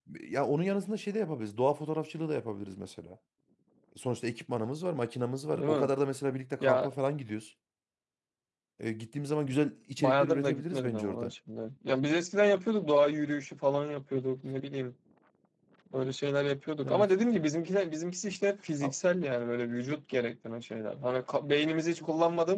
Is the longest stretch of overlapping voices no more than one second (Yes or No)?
No